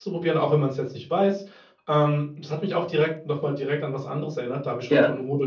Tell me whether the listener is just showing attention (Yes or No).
Yes